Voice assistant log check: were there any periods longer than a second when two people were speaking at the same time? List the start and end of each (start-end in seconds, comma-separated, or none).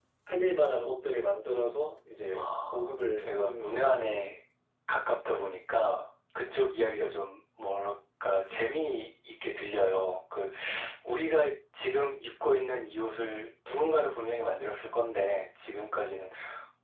2.3-4.2